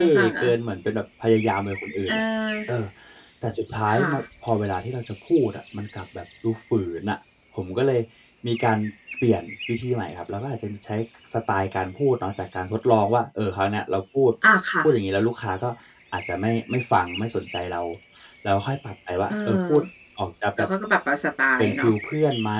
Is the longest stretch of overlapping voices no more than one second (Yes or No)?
Yes